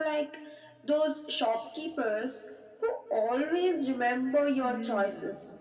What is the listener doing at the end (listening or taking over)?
taking over